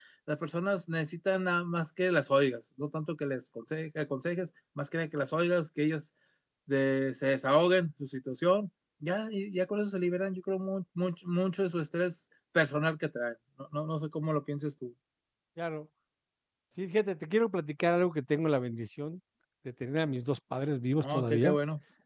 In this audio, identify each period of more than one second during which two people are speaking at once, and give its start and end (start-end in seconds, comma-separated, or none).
none